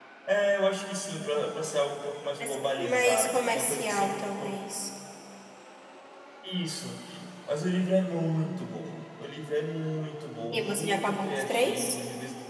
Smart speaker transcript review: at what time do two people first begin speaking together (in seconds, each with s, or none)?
2.4 s